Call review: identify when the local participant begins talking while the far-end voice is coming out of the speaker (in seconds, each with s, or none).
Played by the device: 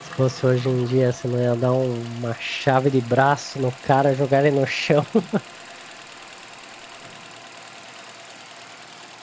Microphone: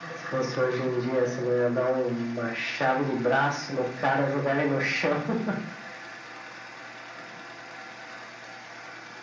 none